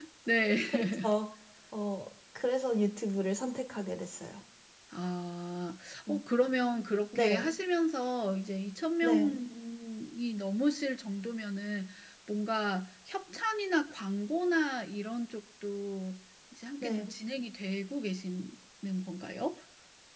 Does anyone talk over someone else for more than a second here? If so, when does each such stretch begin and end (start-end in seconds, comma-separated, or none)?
none